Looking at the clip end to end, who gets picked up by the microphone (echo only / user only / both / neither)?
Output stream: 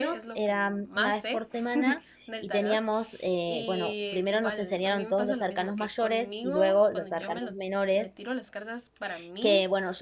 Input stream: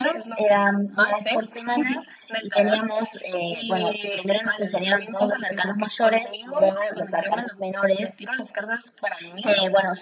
echo only